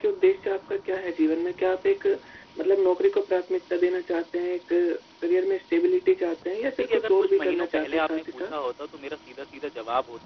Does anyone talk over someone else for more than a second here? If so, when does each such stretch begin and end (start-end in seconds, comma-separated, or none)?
6.8-8.5